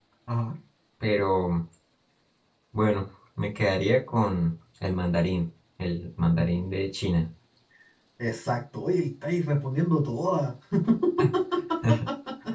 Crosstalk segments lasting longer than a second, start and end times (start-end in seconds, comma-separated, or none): none